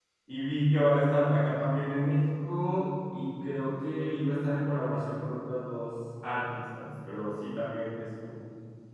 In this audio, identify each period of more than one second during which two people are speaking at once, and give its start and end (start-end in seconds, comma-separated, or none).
none